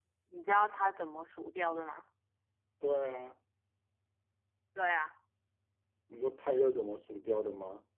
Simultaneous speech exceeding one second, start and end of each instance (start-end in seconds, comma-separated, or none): none